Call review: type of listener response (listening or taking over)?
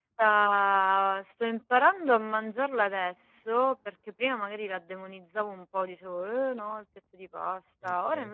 listening